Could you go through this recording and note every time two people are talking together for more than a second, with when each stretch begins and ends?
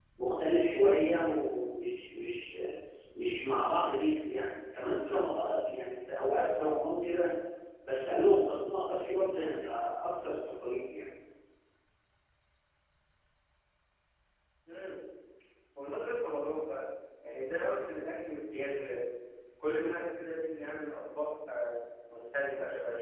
none

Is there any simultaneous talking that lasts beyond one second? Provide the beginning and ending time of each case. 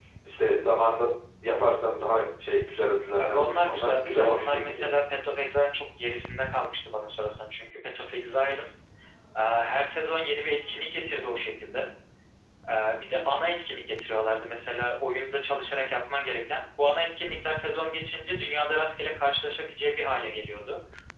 3.2-4.9

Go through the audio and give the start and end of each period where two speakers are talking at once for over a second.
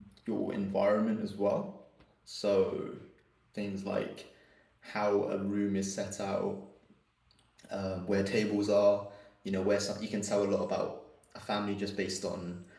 none

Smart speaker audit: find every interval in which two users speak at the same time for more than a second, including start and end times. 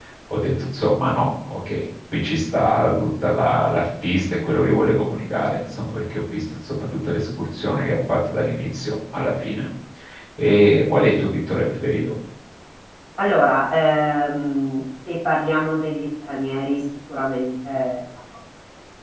none

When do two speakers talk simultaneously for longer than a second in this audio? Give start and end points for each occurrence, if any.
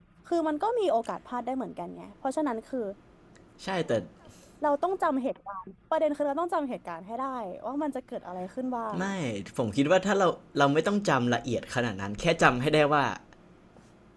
none

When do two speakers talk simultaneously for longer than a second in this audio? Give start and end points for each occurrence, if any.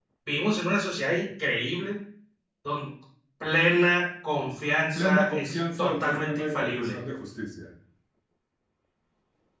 5.0-6.9

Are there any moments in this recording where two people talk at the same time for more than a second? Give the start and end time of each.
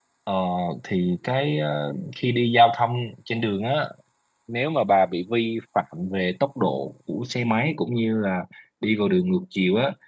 none

